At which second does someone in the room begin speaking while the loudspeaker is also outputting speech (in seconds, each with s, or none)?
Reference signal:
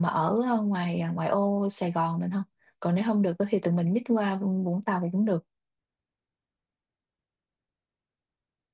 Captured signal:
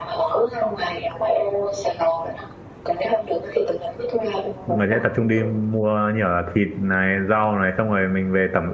4.7 s